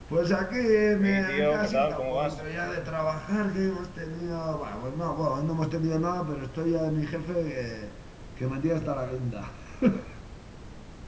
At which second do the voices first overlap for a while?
1.0 s

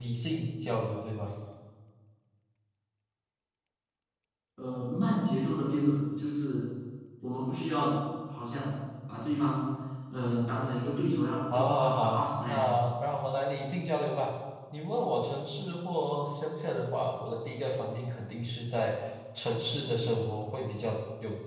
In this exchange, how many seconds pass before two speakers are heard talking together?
11.5 s

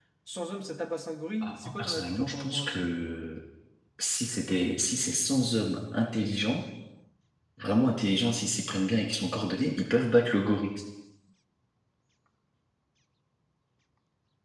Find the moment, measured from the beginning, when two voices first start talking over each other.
1.4 s

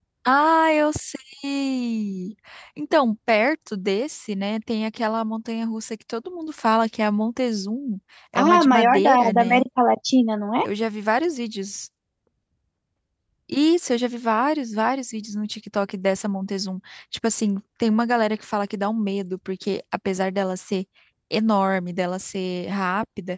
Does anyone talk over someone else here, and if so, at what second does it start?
8.3 s

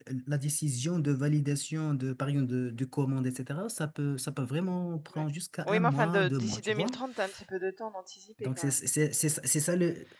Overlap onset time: 5.7 s

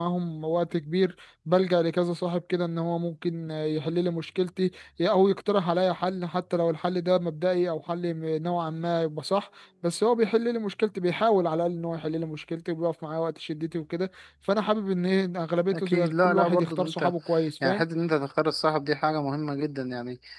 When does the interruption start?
15.7 s

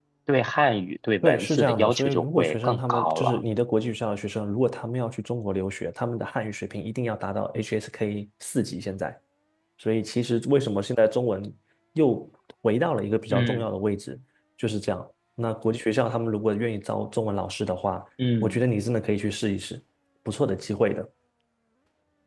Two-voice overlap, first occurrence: 1.2 s

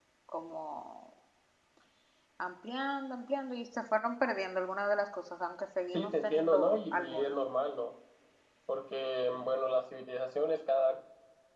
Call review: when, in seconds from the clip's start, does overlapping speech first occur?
5.9 s

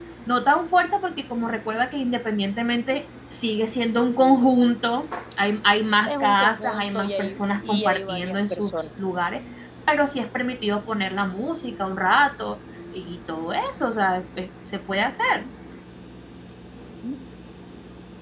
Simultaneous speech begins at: 6.0 s

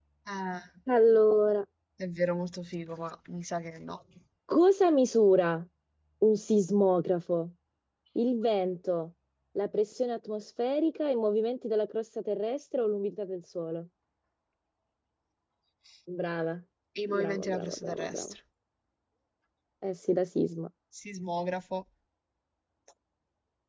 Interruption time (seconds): 17.1 s

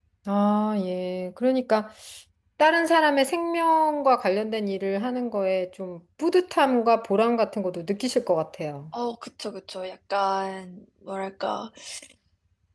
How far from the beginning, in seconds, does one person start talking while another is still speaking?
none

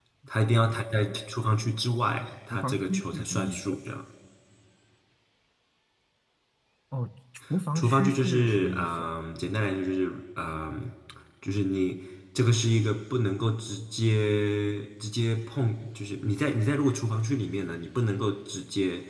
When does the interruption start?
2.5 s

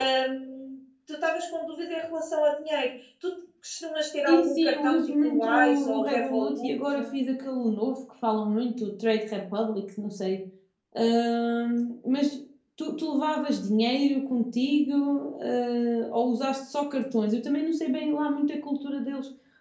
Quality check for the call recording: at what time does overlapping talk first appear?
4.3 s

